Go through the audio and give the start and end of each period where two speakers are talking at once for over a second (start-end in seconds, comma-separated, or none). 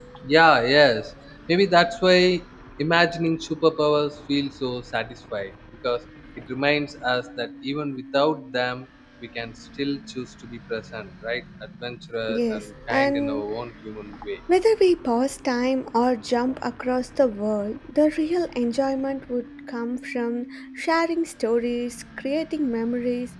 12.3-13.5